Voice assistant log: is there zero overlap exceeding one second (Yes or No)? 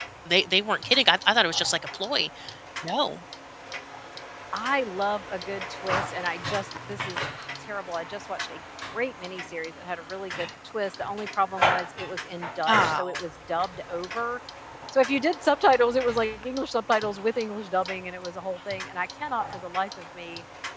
Yes